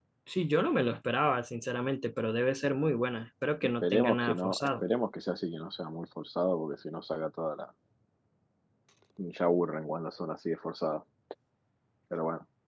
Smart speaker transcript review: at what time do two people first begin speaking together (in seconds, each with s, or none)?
3.6 s